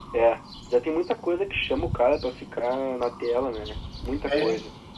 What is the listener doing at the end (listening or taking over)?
taking over